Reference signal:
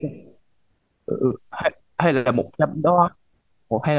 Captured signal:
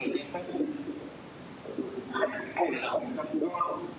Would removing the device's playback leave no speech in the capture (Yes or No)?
Yes